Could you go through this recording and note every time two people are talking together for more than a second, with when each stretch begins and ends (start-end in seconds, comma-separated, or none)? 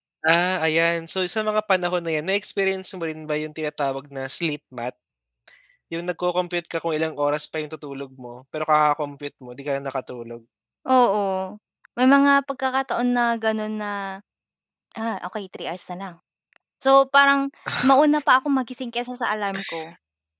none